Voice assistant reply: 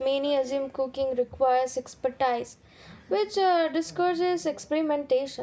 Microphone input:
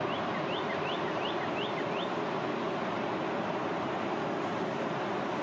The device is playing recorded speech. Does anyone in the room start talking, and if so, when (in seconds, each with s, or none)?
none